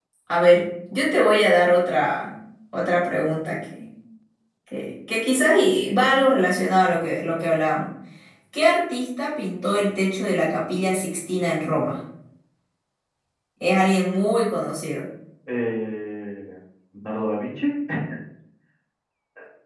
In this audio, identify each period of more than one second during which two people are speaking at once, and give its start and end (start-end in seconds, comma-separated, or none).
none